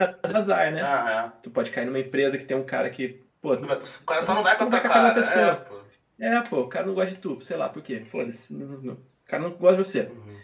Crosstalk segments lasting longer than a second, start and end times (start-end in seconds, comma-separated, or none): 4.2-5.5